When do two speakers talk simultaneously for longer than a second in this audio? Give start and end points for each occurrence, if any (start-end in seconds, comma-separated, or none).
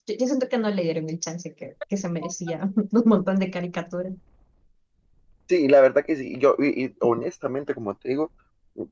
none